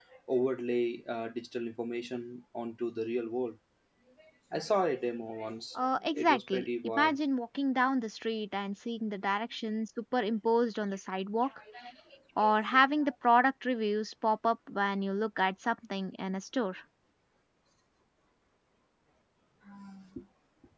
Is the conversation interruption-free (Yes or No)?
No